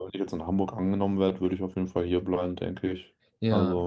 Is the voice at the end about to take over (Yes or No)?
Yes